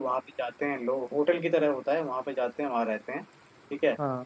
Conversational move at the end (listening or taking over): listening